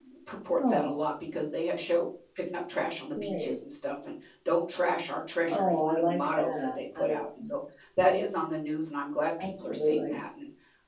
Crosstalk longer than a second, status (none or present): present